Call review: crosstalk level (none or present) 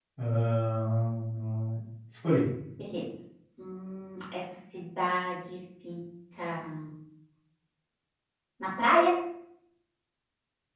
none